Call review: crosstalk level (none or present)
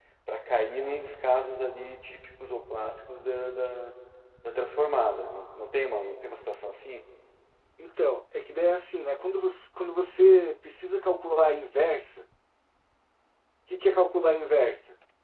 none